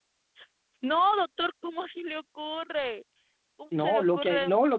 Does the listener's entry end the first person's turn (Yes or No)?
Yes